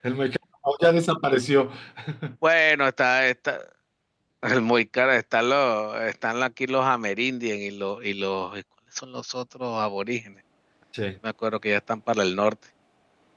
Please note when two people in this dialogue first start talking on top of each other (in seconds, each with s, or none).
none